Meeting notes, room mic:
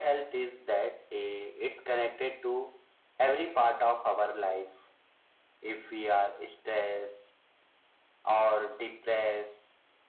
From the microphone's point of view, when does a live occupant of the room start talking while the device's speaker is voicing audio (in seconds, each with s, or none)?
none